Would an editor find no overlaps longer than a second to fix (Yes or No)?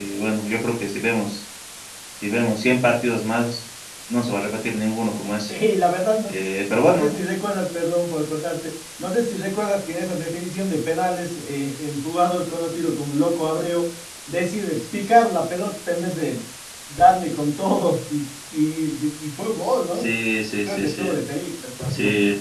Yes